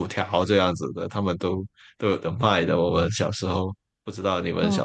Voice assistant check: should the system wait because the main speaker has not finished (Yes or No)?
No